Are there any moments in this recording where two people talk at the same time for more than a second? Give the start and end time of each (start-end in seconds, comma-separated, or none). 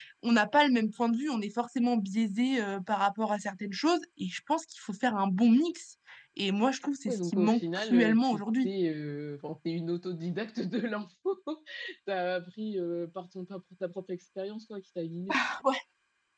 7.0-8.7